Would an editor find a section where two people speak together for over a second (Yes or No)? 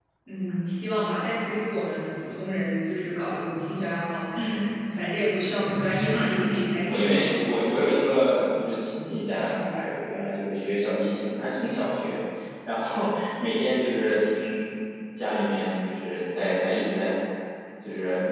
Yes